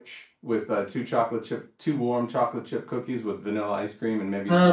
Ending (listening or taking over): taking over